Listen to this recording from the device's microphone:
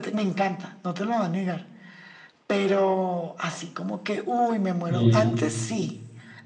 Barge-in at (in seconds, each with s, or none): 4.9 s